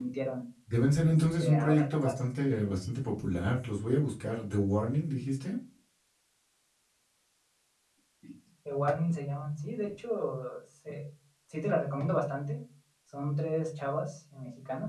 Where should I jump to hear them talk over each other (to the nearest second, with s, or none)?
1 s